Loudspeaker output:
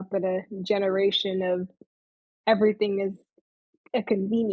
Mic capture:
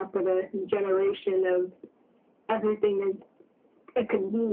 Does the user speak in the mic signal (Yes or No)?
No